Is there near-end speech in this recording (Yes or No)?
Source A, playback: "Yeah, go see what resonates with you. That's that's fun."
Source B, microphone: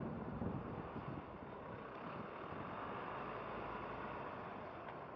No